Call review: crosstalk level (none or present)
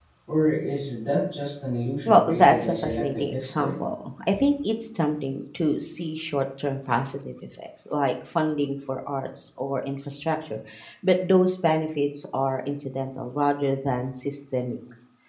present